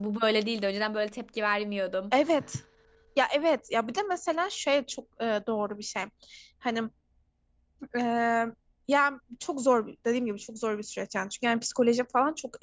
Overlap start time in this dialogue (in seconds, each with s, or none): none